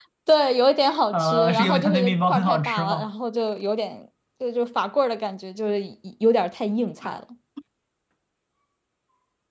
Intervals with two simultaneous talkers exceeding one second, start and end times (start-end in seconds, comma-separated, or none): 1.1-3.1